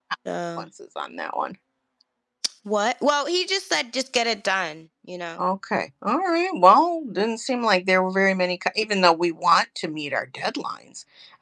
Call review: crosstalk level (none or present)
none